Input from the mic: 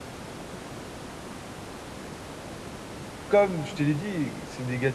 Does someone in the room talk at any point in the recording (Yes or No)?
Yes